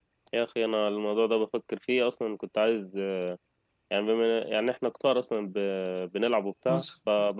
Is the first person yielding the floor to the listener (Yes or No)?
No